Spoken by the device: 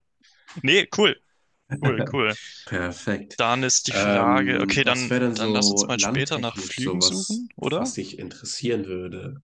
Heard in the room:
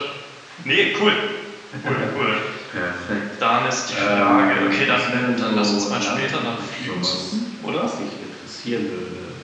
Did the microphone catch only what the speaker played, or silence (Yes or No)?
Yes